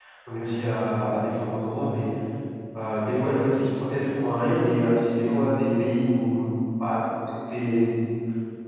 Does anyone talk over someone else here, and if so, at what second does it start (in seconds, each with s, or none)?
none